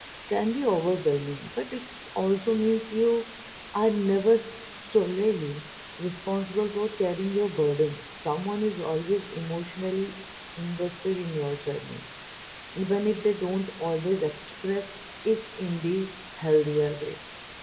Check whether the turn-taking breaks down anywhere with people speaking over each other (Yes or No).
No